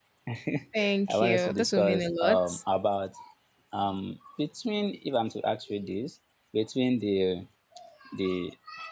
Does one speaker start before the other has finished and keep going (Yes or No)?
Yes